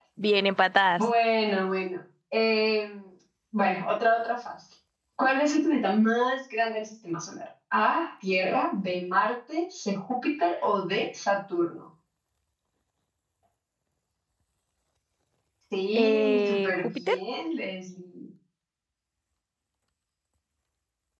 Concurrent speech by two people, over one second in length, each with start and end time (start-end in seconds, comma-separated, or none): 15.9-17.2